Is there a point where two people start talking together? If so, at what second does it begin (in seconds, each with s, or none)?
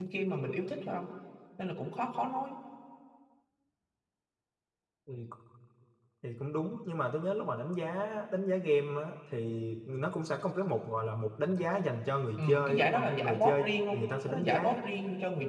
12.4 s